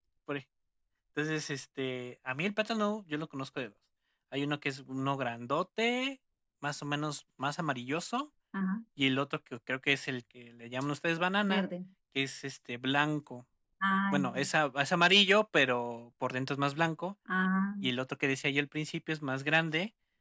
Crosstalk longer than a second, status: none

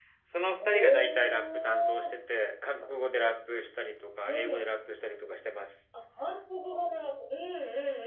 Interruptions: present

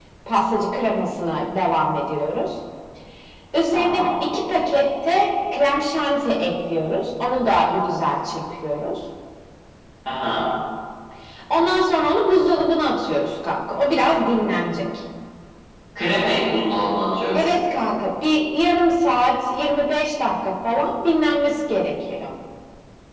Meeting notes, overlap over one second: none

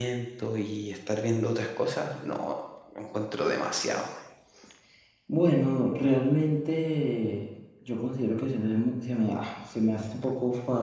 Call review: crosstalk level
none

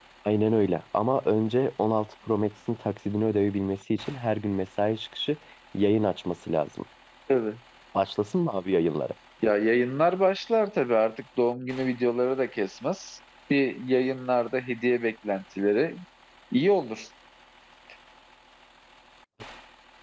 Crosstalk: none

